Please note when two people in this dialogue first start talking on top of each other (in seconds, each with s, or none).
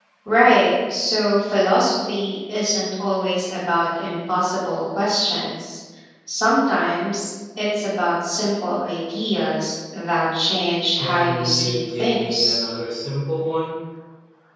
10.9 s